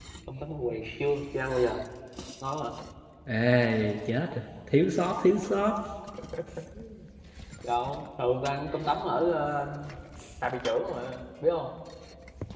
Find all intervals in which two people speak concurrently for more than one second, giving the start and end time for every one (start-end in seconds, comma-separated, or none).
none